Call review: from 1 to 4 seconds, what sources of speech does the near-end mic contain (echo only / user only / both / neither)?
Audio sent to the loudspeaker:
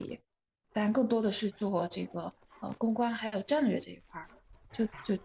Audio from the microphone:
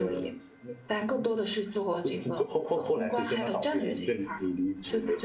both